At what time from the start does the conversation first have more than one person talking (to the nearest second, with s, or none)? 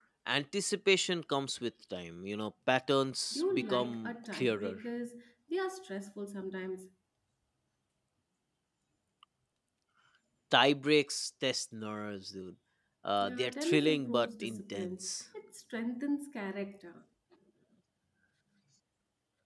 3 s